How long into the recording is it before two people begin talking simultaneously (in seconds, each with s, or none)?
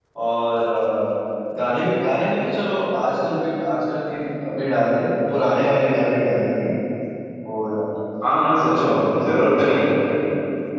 8.7 s